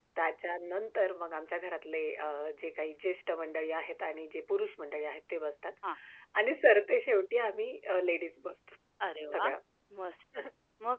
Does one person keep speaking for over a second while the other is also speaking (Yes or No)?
No